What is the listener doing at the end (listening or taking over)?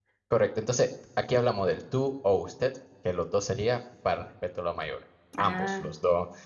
listening